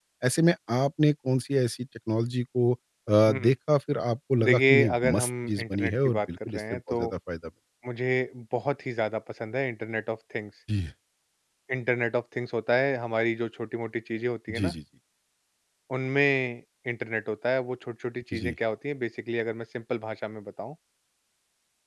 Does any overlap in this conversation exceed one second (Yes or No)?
Yes